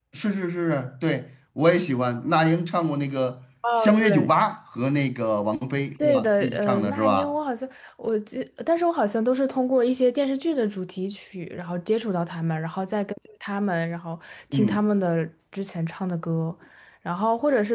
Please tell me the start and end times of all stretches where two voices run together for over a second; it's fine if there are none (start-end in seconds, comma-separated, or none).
6.0-7.3